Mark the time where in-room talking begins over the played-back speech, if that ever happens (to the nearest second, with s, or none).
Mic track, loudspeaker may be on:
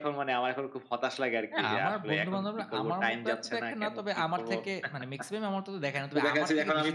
2 s